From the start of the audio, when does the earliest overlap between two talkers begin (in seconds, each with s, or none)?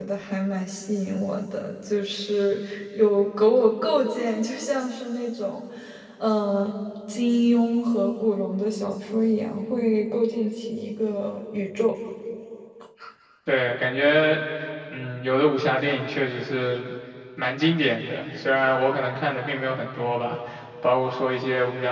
none